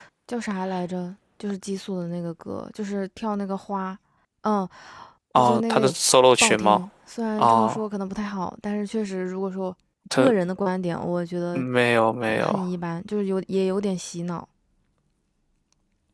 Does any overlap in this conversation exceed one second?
No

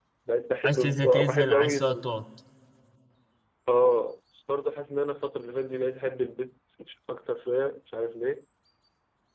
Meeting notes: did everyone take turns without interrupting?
No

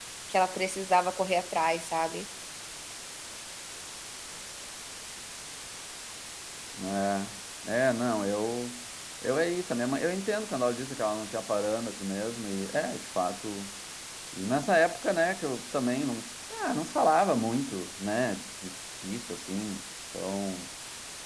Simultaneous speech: No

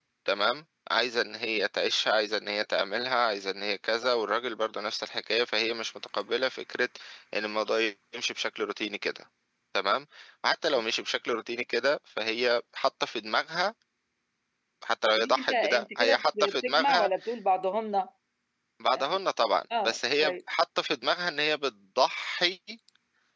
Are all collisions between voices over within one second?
No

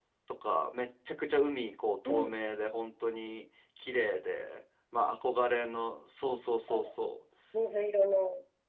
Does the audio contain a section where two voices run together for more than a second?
No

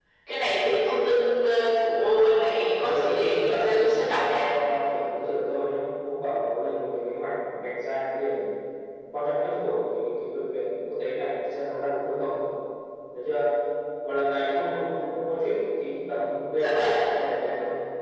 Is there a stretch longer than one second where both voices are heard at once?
Yes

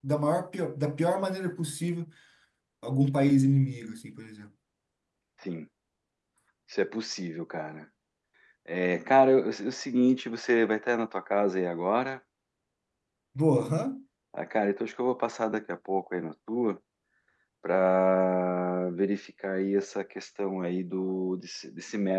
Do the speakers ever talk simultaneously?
No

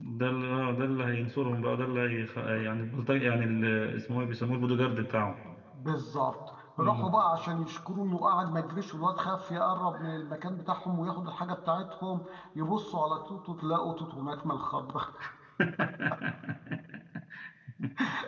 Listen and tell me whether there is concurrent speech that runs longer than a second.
No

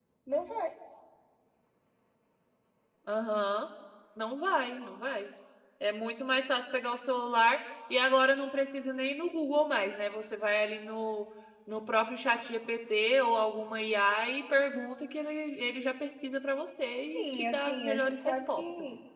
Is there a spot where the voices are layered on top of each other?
Yes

